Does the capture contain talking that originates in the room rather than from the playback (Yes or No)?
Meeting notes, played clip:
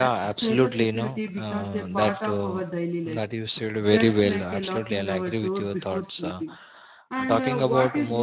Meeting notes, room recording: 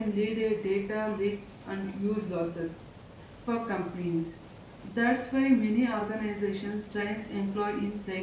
Yes